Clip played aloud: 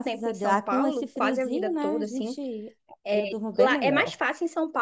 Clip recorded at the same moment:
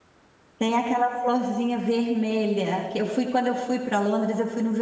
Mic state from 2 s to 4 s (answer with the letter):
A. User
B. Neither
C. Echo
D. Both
A